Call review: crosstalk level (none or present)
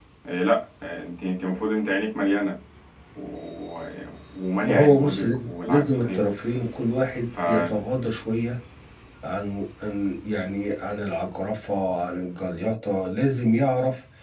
present